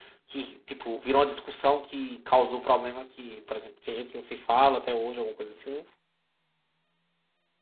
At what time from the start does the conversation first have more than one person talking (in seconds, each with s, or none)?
none